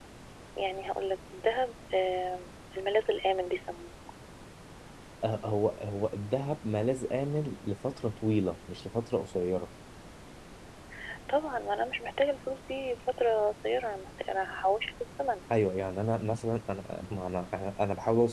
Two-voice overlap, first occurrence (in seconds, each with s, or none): none